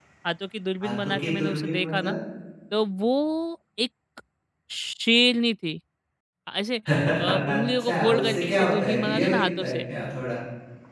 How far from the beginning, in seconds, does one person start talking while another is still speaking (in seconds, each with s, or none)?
0.8 s